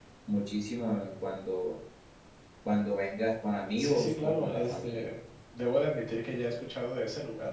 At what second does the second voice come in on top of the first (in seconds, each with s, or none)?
3.8 s